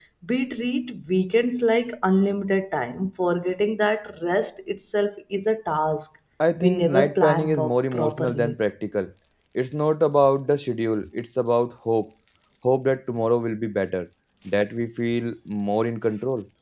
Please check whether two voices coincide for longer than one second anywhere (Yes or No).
Yes